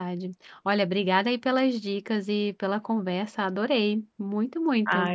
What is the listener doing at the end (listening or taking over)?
taking over